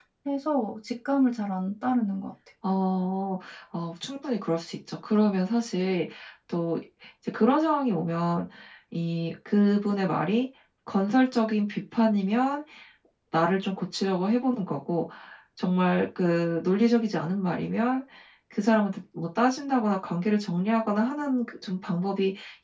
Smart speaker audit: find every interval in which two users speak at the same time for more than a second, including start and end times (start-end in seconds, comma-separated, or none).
none